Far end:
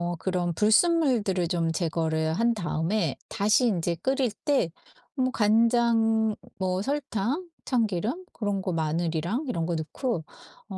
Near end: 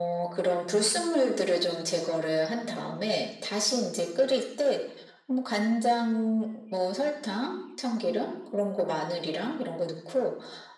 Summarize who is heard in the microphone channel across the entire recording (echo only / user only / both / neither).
echo only